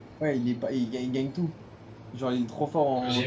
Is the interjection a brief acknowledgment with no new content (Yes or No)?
No